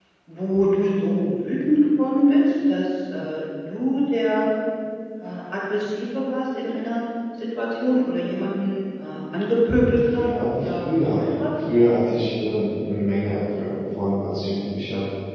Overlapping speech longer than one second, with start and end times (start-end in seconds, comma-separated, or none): 9.9-11.5